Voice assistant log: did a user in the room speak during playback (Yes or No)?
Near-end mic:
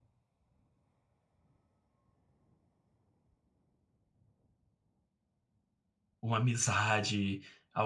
Yes